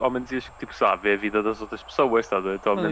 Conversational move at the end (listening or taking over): taking over